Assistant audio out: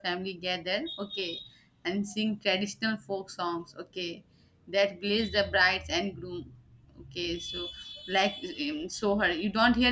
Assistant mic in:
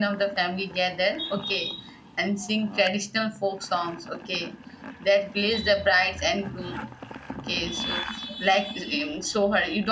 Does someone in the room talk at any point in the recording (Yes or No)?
No